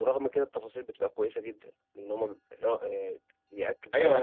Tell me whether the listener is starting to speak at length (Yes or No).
Yes